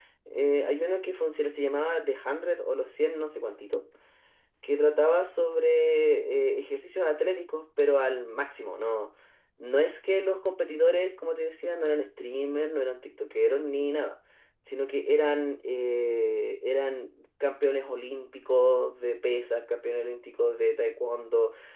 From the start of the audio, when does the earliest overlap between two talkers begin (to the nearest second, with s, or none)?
none